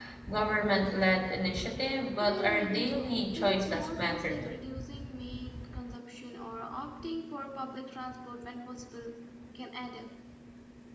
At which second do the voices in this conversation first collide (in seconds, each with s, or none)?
2.2 s